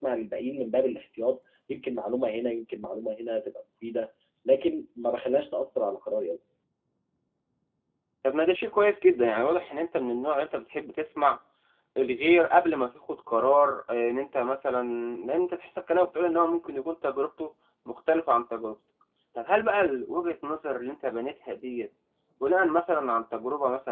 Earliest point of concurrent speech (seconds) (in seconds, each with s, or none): none